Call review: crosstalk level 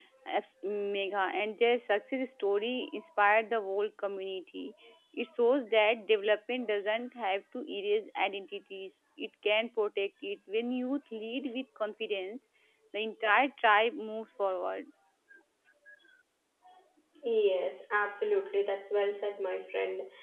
none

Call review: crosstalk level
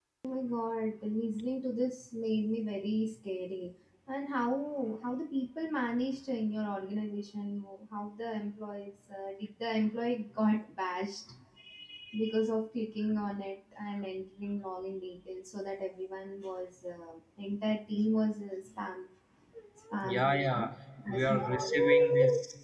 present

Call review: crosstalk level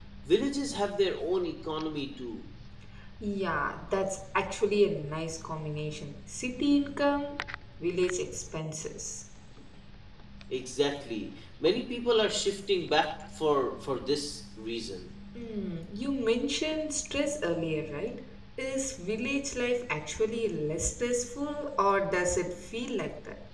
none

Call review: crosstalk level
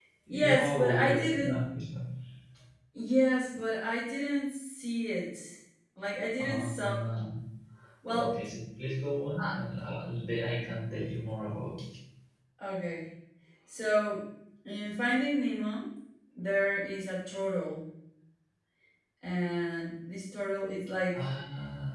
present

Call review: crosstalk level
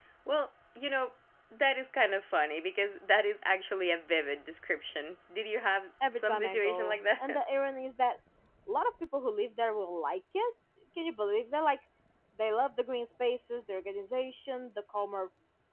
present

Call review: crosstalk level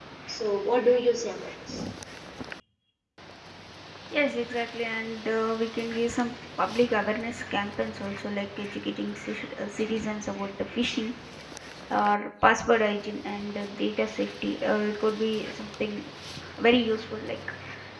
none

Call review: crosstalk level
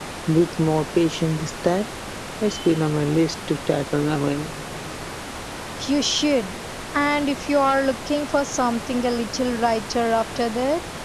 none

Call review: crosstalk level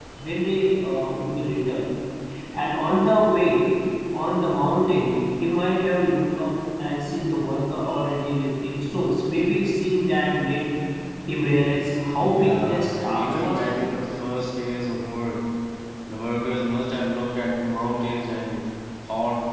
present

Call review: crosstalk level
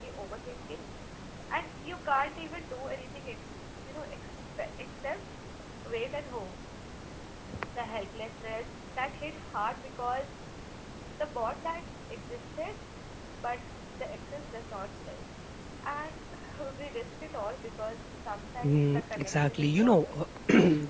present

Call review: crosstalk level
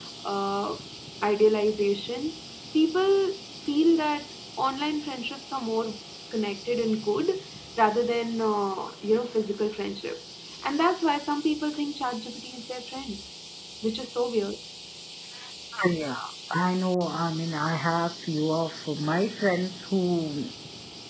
none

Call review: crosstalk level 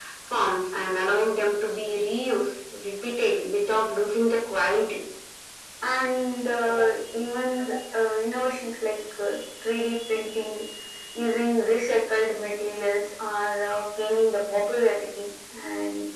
none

